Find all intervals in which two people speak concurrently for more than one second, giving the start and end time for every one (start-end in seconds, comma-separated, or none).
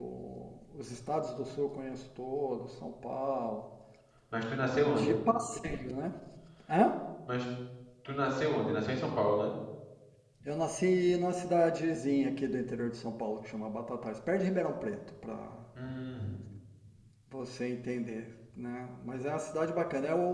none